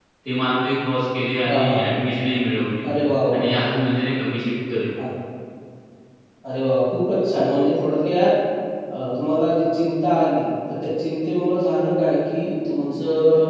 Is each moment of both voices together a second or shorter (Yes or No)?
Yes